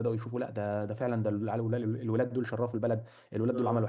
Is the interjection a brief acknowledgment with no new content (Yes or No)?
Yes